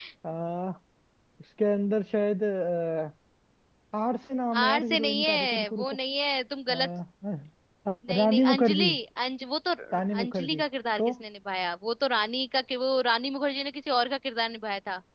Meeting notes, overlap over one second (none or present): present